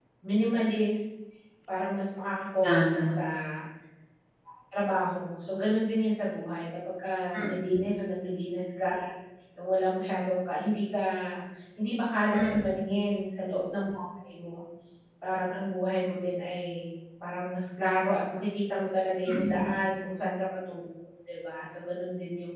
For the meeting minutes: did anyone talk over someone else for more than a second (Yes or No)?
No